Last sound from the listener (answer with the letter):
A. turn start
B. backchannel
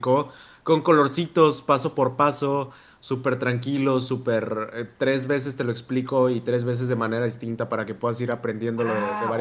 A